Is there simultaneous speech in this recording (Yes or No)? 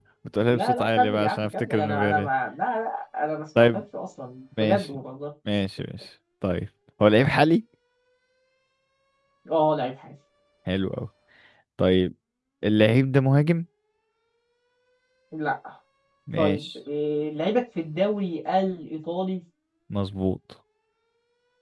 Yes